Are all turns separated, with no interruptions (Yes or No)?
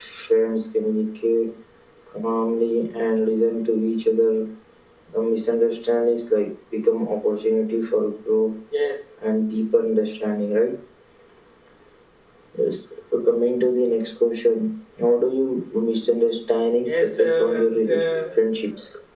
No